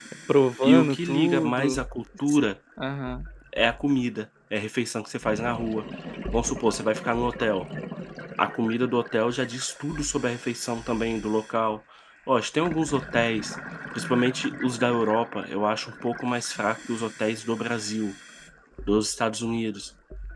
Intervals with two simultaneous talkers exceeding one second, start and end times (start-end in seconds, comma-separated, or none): 0.6-1.8